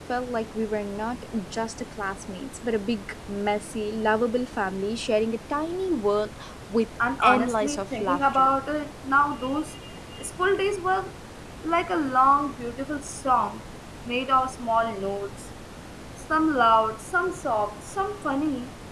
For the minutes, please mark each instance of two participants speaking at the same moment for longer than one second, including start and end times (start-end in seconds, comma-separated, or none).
7.2-8.5